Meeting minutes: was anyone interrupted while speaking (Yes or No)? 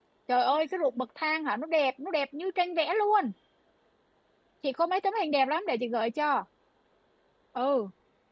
No